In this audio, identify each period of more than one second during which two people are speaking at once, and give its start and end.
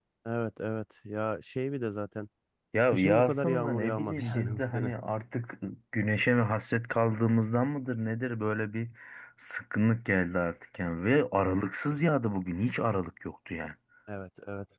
2.9-4.9

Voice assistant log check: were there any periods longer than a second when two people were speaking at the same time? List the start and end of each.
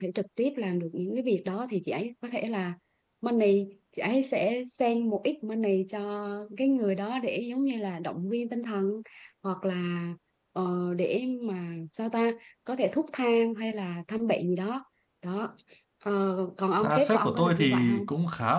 16.8-18.1

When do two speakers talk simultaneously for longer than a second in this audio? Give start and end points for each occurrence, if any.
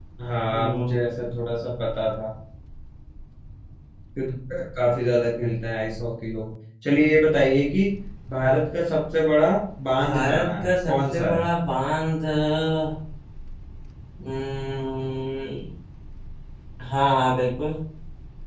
10.0-11.4

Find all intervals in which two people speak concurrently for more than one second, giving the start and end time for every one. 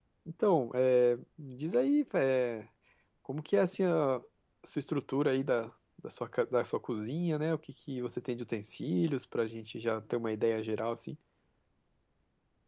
none

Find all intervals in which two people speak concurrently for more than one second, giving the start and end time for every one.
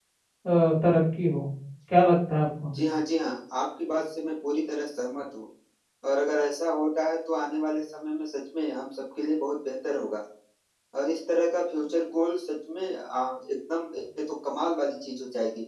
none

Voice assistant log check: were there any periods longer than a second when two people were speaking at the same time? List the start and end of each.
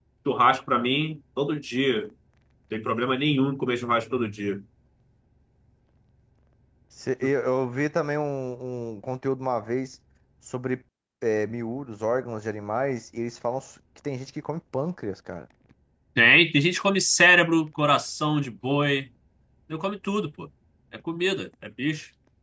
none

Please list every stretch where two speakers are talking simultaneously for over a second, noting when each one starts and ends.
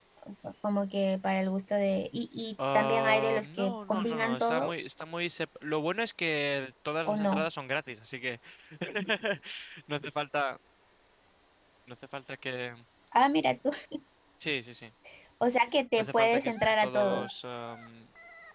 2.7-4.7, 16.0-17.3

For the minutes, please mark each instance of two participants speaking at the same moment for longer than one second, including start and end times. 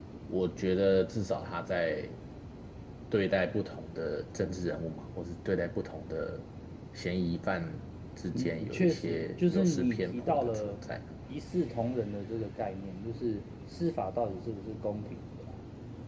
8.3-10.8

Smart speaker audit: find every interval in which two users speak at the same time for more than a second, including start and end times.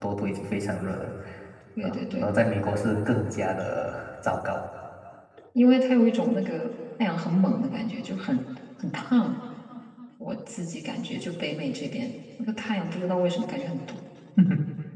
none

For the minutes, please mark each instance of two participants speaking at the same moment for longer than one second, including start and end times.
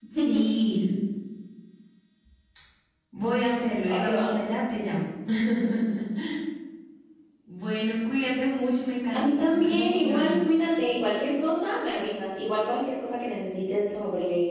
9.1-10.3

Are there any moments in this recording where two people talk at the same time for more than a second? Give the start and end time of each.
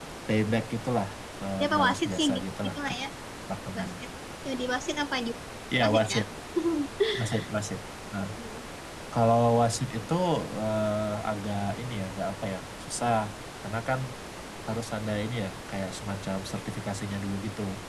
1.6-2.9

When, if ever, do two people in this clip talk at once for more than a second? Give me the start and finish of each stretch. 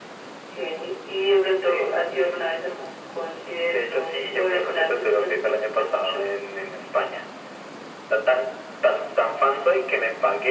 3.7-6.3

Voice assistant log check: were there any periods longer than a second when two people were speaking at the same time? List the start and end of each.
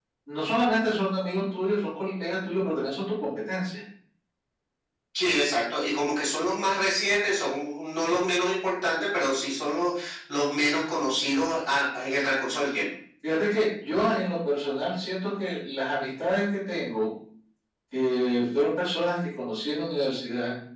none

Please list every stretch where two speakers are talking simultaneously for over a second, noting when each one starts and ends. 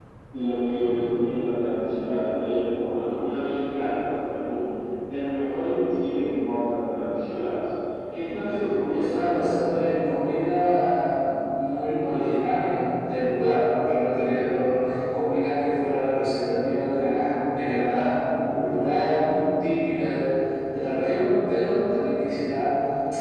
8.9-10.2

